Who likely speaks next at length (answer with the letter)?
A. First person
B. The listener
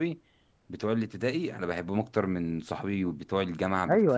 B